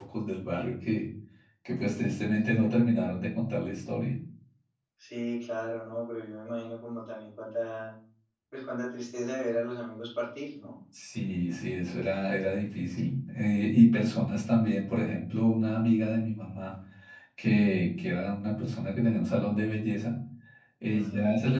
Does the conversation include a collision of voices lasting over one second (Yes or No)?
No